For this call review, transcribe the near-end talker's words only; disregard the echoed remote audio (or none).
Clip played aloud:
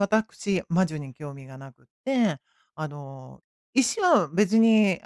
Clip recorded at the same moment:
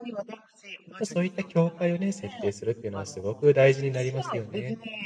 っぱそういった境界をね、設定するっていうのはすごく大事になりますよね。